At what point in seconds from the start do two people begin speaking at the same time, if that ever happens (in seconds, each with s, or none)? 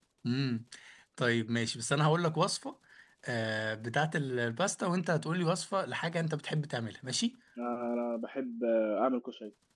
none